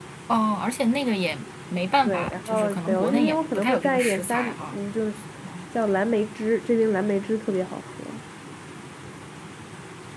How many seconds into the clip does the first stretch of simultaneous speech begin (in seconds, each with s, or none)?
2.0 s